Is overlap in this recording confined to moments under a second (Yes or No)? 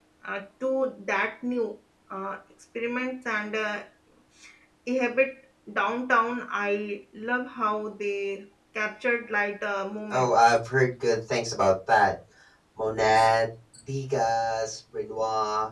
Yes